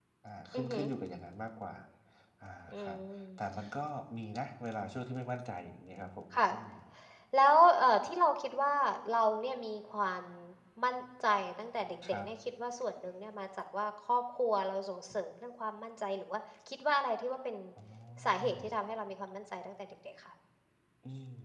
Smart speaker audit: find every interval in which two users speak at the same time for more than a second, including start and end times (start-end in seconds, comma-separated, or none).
none